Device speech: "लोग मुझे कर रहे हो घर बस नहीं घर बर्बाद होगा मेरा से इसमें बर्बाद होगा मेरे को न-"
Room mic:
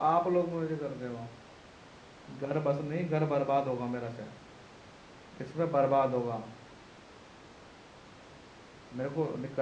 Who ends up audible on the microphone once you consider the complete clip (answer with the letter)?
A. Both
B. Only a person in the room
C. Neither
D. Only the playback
D